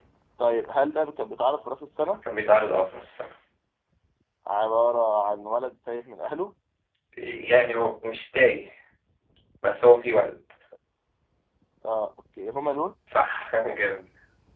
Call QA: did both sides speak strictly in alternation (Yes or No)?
Yes